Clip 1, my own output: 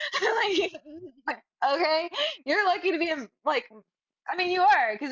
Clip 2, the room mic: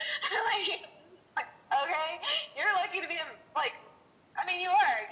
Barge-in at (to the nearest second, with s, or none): none